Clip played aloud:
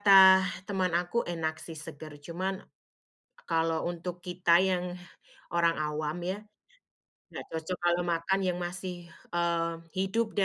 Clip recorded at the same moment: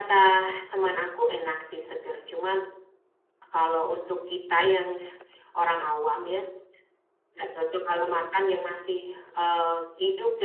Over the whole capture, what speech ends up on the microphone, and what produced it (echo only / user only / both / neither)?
echo only